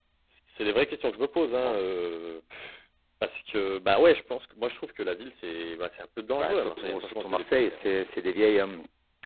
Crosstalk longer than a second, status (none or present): present